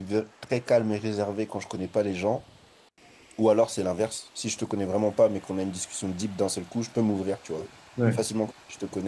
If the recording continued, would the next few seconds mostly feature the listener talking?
No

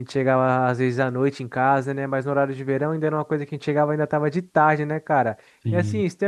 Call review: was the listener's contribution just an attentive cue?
Yes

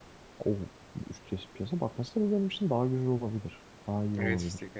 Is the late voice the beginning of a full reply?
Yes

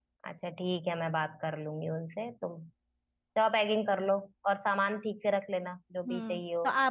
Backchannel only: No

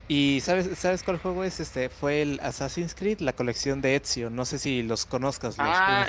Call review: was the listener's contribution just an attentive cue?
No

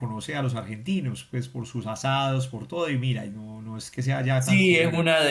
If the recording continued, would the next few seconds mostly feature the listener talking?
Yes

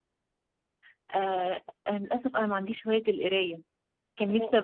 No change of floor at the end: Yes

